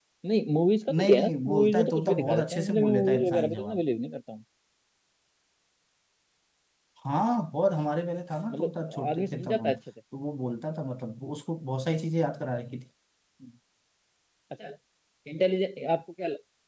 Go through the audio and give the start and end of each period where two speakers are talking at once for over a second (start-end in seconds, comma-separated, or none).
1.0-3.8, 8.5-9.8